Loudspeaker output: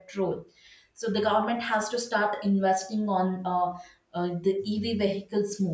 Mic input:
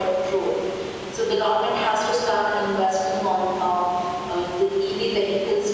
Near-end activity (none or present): none